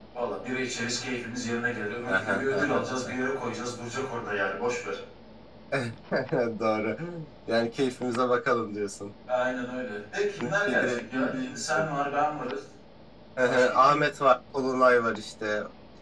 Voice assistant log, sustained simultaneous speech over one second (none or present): present